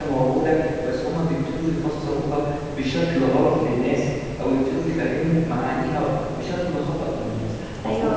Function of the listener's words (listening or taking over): taking over